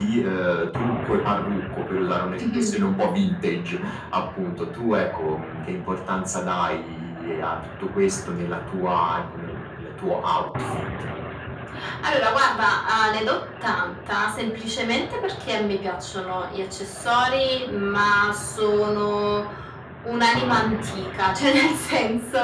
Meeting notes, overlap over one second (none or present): none